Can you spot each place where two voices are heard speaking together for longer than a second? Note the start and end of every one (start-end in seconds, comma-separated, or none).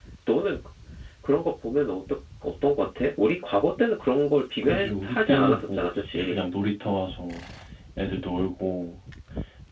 4.6-6.4